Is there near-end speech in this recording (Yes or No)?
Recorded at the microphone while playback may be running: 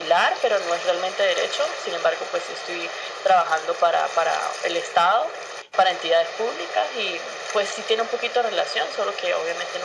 No